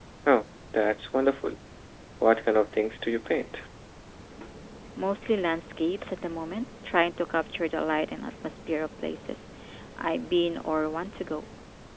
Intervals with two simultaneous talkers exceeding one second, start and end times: none

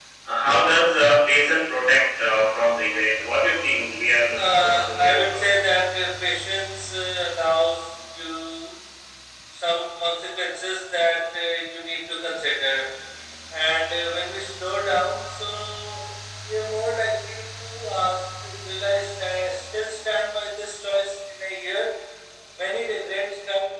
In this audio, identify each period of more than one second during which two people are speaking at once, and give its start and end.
4.4-5.6

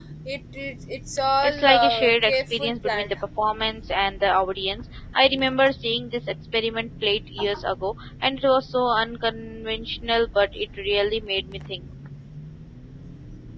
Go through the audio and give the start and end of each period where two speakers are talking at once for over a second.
1.4-3.1

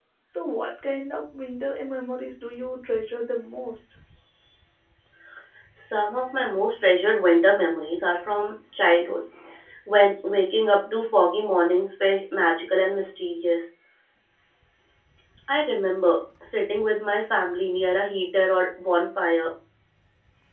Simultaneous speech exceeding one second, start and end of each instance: none

